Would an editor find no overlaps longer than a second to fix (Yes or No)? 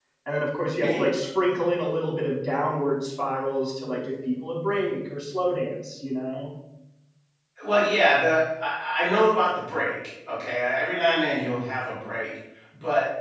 Yes